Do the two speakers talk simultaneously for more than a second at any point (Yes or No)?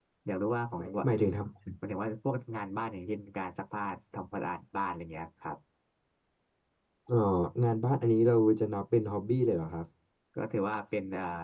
No